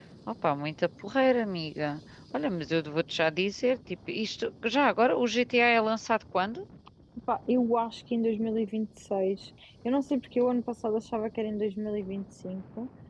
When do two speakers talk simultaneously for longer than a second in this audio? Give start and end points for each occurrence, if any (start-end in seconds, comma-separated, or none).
none